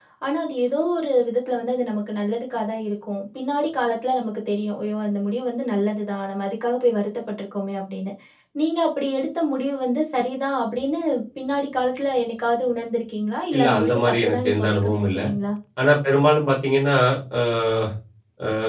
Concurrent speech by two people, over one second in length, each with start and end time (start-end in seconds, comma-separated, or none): 13.5-15.2